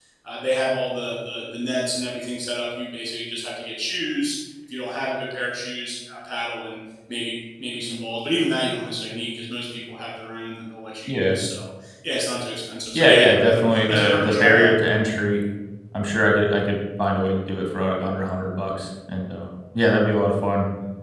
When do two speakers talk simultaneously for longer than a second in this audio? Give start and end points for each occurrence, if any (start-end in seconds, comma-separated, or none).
12.9-14.7